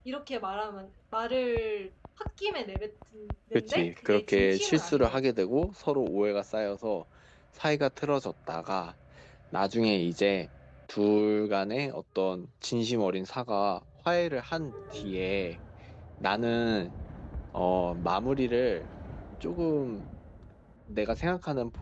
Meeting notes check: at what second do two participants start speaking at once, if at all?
3.5 s

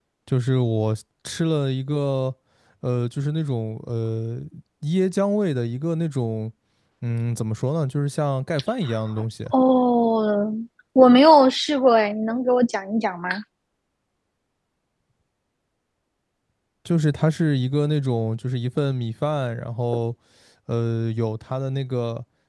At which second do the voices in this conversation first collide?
none

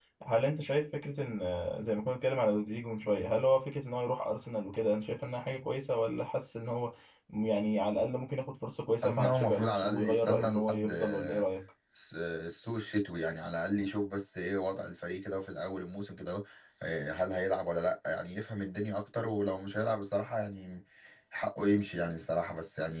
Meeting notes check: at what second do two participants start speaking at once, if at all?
9.0 s

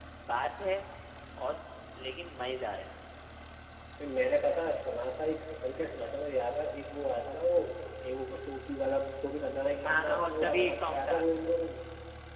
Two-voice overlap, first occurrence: 9.8 s

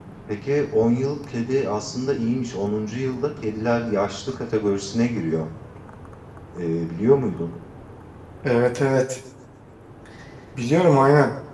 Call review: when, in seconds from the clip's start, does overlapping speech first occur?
none

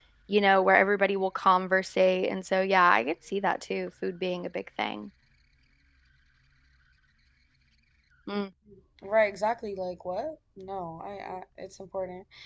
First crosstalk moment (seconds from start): none

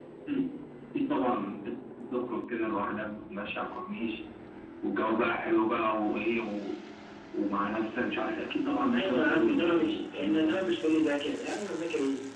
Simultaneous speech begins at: 8.9 s

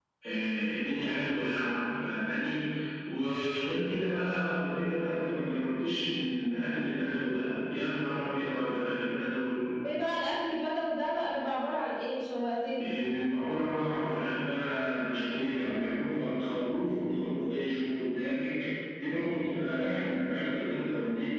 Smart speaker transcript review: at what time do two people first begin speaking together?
none

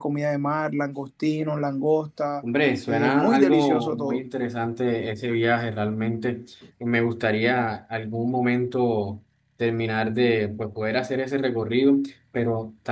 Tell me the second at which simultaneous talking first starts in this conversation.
2.9 s

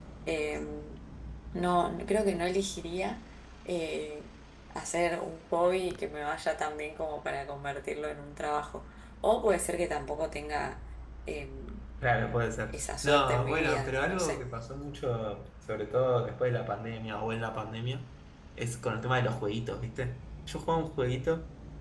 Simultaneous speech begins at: 12.7 s

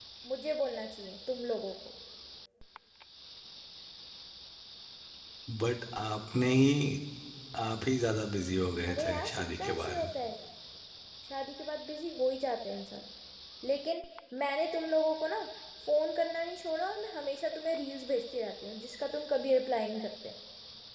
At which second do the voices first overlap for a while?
8.8 s

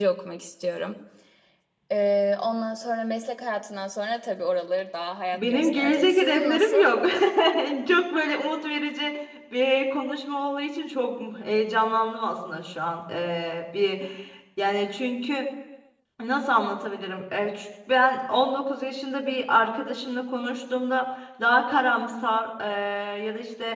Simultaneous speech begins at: 5.3 s

